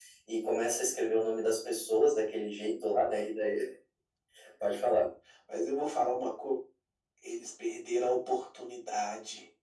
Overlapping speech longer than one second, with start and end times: none

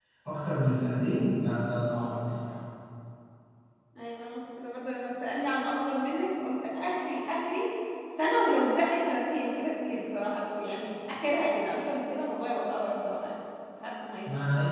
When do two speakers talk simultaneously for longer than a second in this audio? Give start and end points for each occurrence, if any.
none

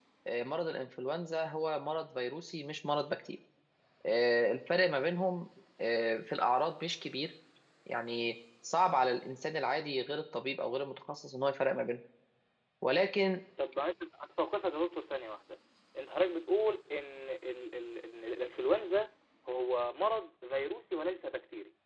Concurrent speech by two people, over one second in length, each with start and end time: none

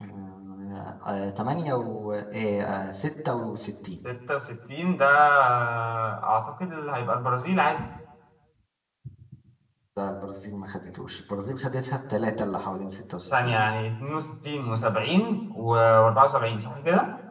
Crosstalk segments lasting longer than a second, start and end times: none

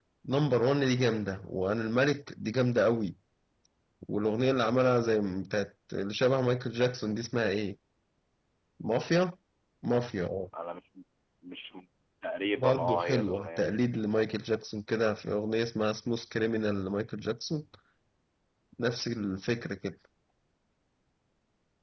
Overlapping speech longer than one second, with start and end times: 12.6-13.8

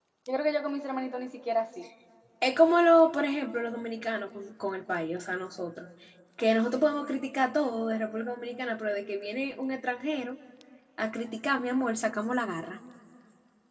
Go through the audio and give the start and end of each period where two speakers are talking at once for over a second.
none

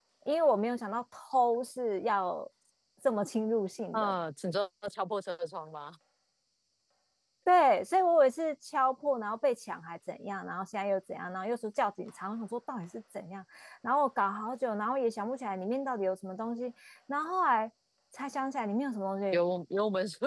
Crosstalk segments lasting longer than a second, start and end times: none

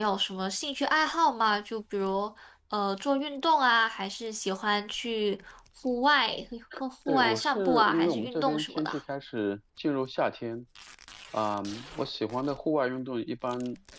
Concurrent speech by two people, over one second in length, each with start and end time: 7.1-8.9

